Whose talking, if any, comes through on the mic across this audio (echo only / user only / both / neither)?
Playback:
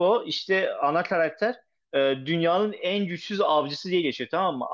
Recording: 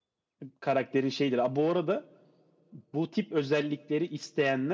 user only